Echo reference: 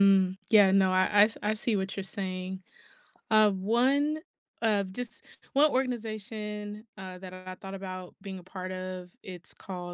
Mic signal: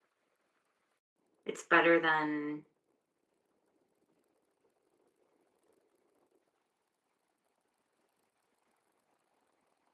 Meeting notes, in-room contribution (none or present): present